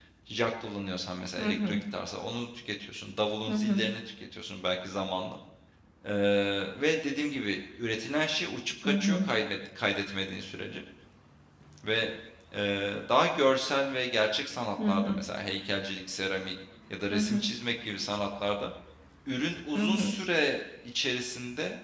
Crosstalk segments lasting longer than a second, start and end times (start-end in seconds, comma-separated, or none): none